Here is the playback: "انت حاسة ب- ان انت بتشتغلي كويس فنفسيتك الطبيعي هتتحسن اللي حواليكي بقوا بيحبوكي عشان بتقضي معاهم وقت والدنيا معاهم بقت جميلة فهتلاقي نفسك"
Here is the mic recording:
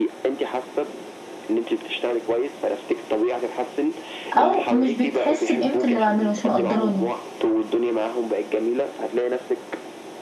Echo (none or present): present